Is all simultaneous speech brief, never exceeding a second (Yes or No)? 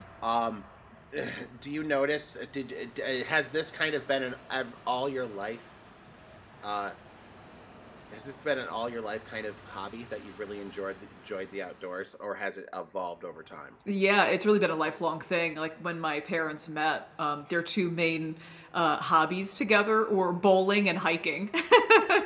Yes